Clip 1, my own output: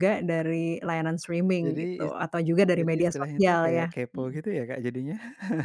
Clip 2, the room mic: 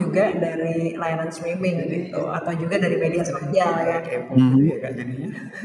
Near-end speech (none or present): present